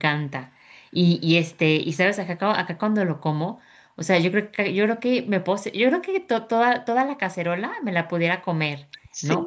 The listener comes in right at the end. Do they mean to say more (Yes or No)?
No